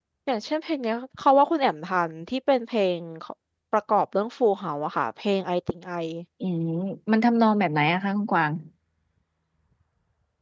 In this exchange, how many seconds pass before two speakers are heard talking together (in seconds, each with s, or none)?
none